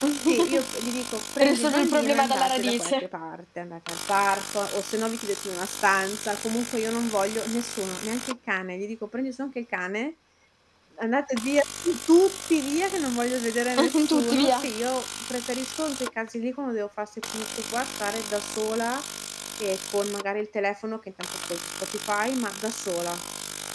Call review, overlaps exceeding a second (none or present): present